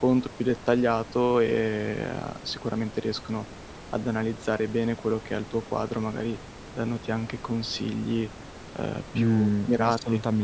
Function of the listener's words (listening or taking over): taking over